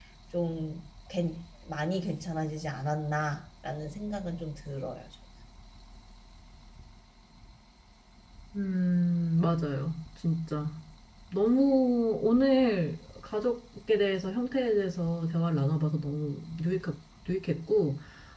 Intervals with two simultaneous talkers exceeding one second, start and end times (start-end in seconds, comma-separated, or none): none